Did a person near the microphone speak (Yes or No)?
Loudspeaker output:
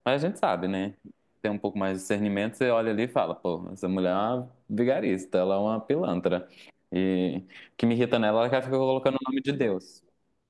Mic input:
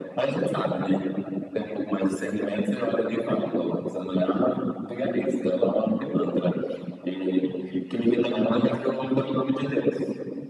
No